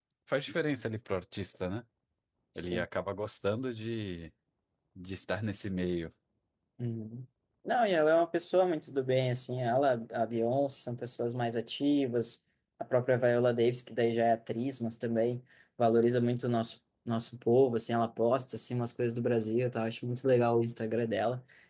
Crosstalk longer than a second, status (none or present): none